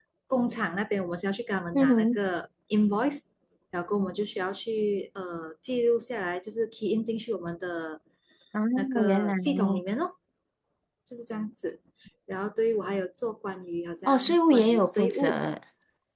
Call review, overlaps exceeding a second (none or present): present